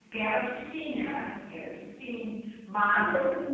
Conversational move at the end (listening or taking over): taking over